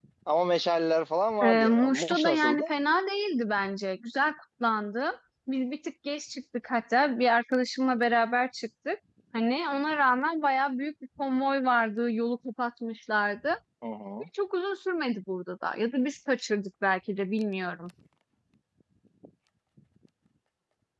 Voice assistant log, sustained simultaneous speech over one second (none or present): present